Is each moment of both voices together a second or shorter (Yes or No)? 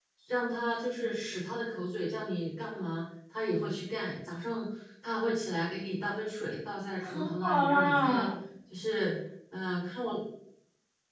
No